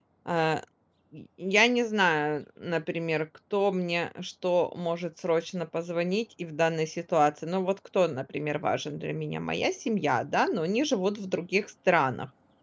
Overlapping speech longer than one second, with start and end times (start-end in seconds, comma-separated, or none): none